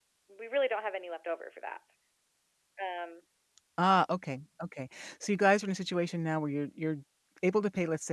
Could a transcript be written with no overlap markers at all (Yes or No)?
Yes